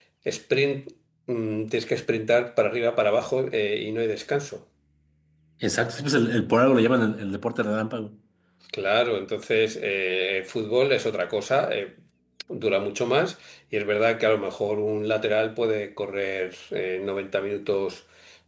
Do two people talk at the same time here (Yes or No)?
No